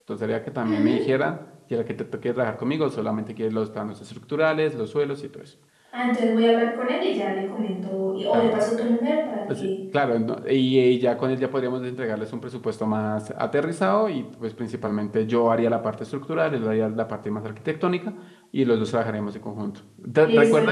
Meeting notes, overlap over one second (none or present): none